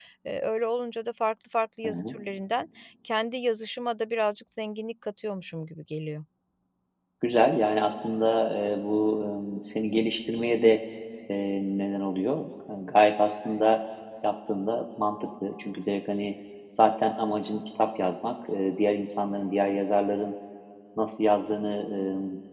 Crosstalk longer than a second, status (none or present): none